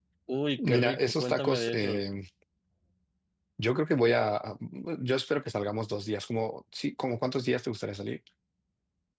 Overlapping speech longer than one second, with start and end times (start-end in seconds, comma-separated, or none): 0.6-2.1